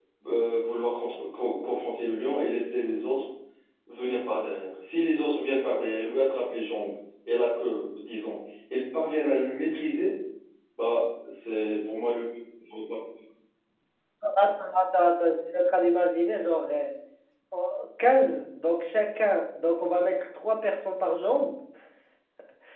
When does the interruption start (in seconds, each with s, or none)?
none